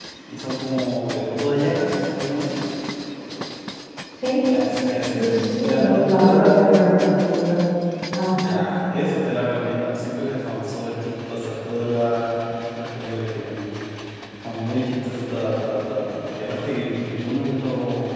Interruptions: present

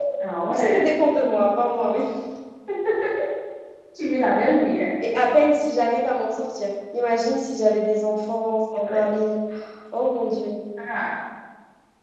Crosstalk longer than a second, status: none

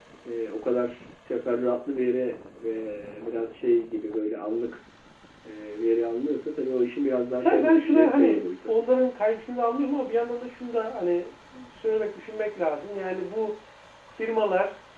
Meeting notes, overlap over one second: present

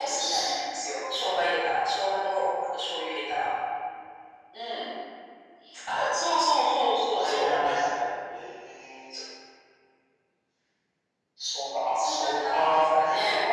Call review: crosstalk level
present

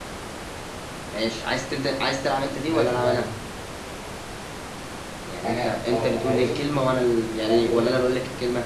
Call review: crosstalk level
present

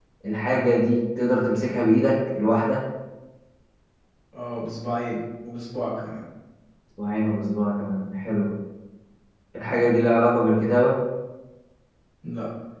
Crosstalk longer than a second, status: none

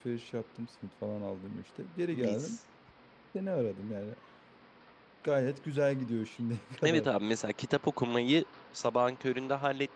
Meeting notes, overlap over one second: none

